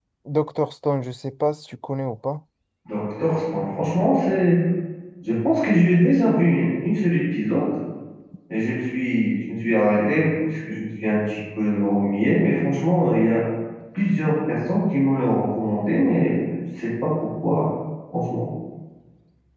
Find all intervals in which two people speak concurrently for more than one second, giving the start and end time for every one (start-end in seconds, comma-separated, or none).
none